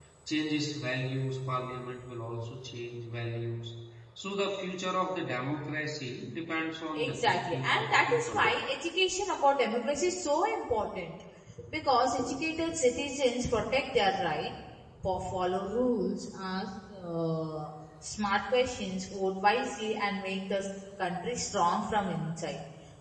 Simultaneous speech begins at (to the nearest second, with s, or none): 7 s